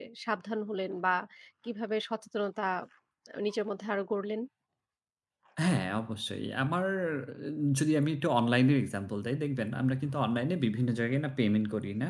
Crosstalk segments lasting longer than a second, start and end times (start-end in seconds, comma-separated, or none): none